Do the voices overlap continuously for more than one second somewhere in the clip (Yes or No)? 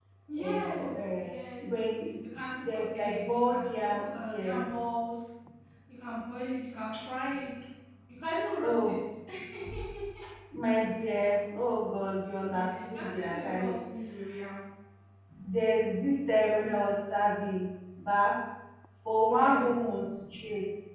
Yes